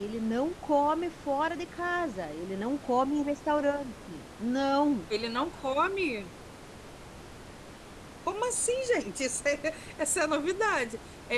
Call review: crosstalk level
none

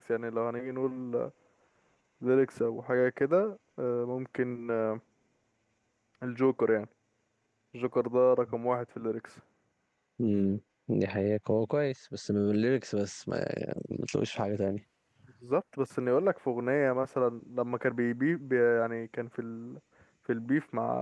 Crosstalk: none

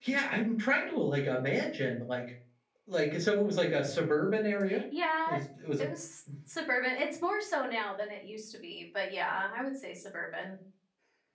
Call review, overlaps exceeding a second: none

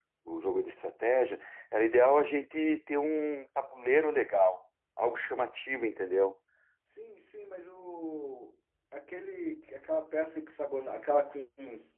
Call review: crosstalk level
none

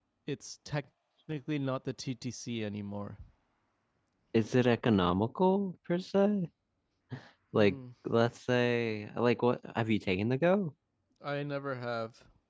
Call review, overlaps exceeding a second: none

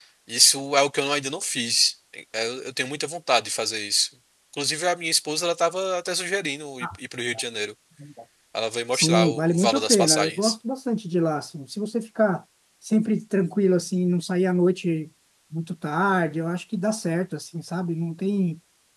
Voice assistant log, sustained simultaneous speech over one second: present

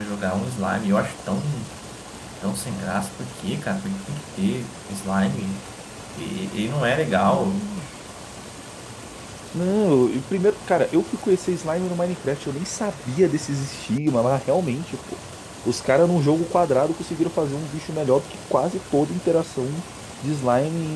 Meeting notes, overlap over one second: none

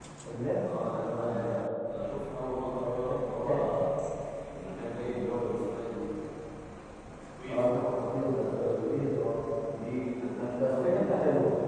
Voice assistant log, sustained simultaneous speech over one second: present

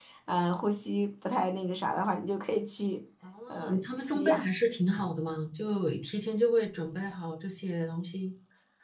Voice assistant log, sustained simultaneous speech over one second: none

